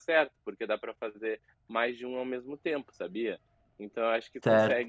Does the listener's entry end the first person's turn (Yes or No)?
No